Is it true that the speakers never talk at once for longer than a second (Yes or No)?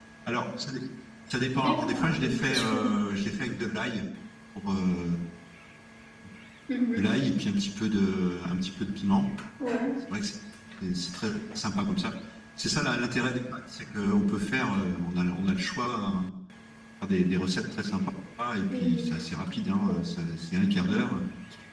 No